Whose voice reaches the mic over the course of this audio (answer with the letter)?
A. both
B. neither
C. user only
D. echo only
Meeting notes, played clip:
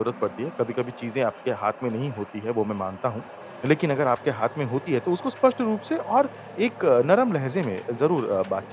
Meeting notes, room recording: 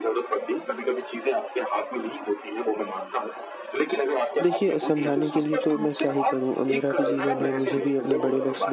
A